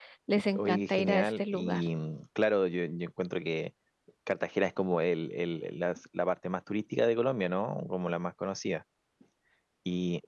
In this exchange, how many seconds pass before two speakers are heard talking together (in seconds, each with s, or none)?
0.5 s